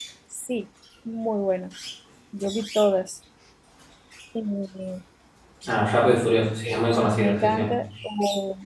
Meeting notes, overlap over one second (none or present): none